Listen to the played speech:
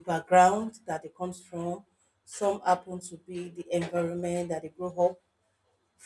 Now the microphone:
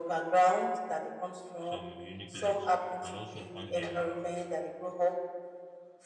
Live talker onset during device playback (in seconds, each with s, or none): 1.6 s